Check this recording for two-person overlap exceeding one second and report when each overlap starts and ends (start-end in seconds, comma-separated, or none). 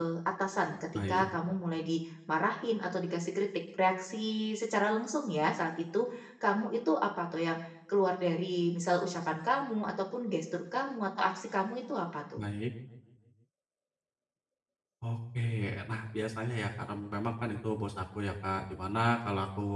none